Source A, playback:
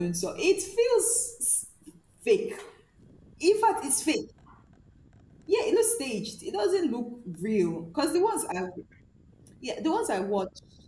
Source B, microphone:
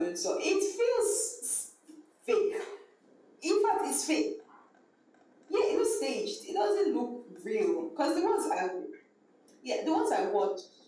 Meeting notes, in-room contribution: none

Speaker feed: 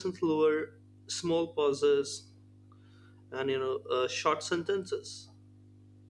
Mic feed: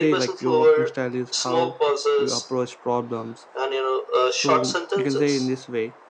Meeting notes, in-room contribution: present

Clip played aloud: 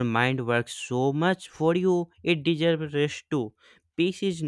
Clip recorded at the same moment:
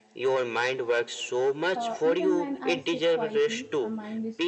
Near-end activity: present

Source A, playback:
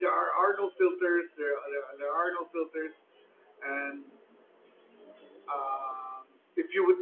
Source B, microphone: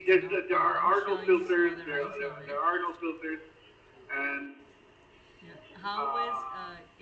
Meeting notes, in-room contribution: present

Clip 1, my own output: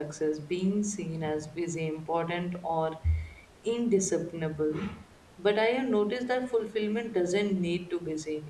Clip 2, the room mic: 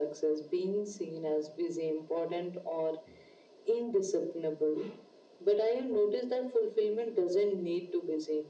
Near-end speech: none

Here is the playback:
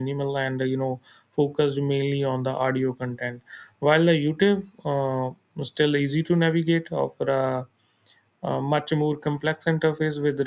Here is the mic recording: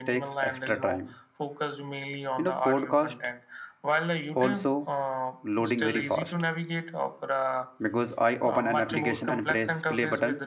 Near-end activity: present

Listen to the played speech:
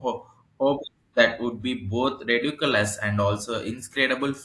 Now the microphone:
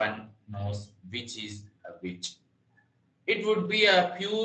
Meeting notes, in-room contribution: present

